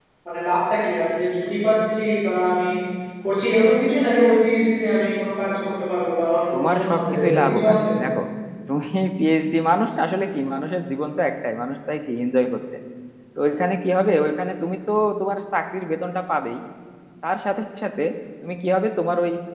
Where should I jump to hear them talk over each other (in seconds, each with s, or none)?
6.5 s